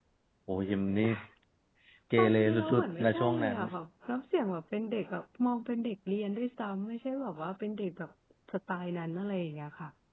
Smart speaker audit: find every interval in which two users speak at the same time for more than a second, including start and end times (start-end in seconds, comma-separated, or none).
2.2-3.6